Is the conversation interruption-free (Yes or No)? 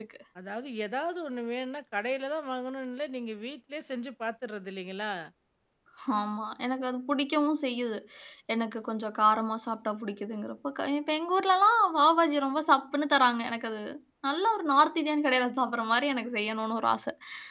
Yes